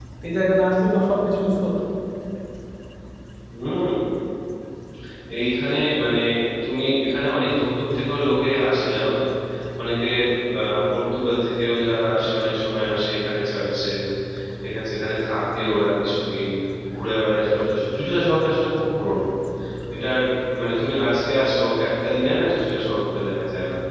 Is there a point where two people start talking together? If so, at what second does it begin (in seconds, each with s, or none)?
none